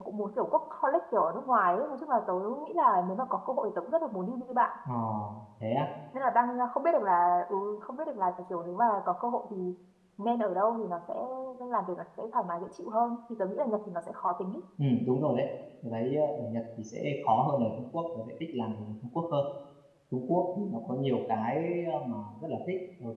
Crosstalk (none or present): none